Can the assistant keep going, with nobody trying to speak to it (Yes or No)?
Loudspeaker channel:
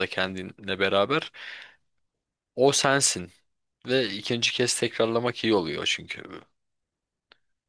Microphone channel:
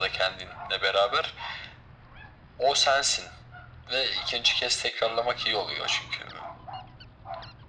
Yes